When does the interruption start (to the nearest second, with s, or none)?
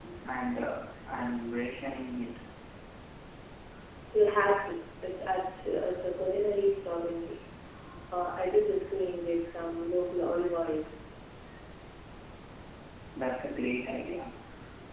none